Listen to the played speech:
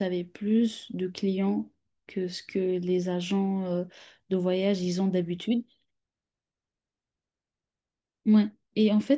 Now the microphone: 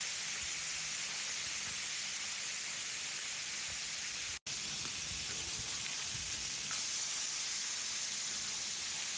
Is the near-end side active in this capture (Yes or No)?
No